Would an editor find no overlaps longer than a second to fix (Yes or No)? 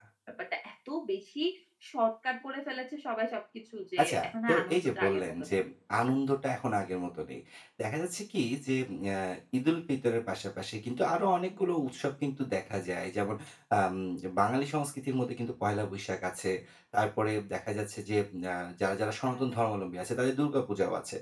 No